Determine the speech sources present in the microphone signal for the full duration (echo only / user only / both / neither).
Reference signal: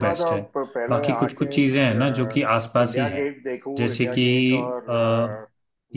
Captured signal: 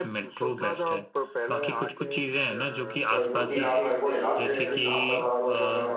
both